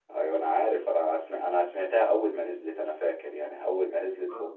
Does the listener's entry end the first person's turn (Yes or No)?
No